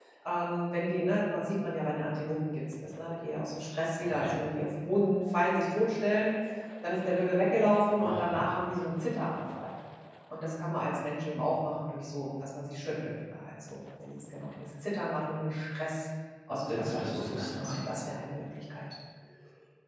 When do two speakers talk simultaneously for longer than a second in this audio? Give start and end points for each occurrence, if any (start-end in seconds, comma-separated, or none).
16.7-17.9